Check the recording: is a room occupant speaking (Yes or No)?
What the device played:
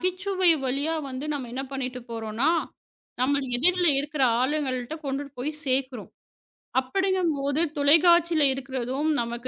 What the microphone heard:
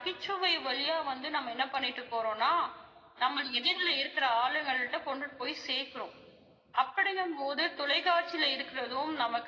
No